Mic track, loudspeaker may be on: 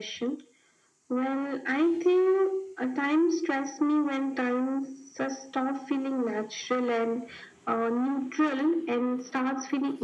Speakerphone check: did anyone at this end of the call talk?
No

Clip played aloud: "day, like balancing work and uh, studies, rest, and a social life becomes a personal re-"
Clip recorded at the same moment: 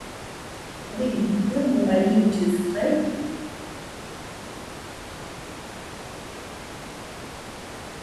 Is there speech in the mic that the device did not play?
Yes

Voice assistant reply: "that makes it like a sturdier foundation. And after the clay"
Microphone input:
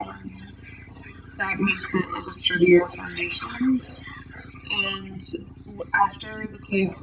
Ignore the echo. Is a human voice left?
No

